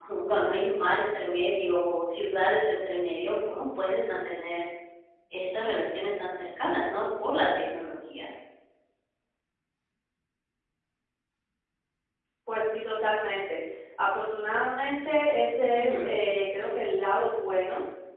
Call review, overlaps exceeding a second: none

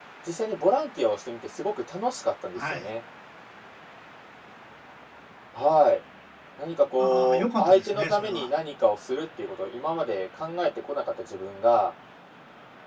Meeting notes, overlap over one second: present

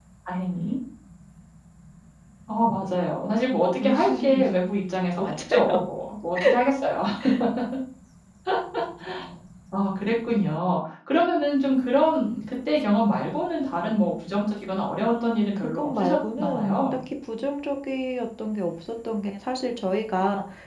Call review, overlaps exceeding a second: present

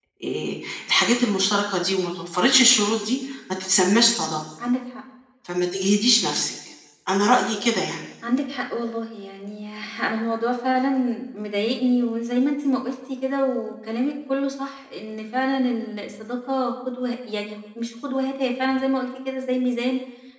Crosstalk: none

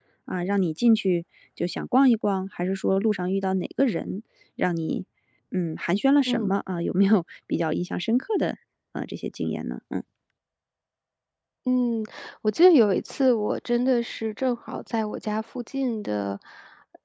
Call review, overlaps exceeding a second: none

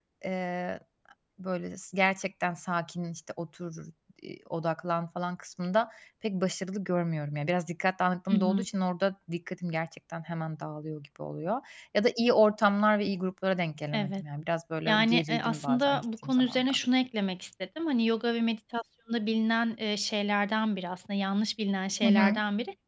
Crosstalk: present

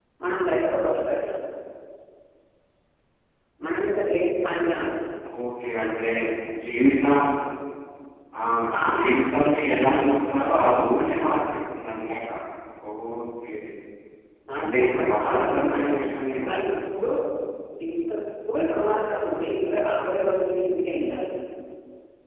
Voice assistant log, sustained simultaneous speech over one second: present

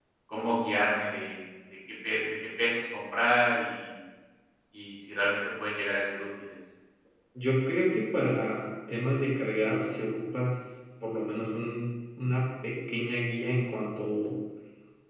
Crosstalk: none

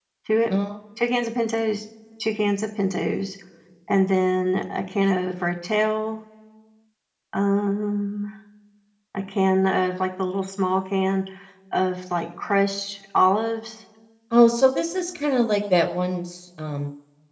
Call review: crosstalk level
none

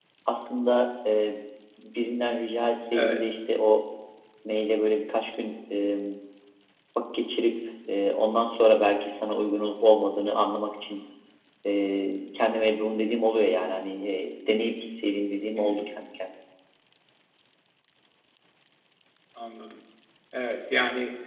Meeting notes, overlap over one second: none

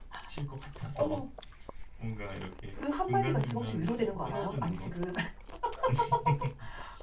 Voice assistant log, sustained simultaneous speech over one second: present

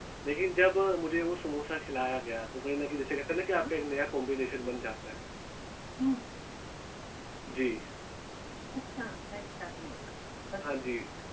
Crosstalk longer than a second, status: none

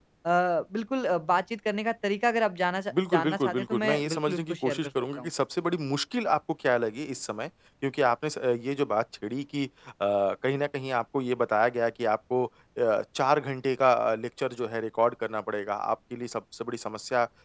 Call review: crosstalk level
present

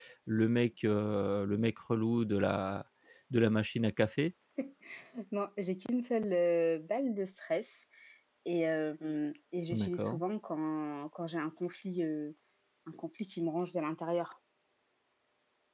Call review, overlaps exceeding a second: none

